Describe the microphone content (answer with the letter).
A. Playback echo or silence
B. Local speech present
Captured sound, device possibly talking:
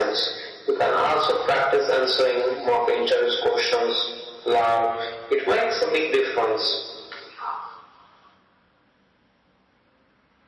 A